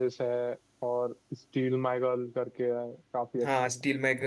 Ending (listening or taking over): taking over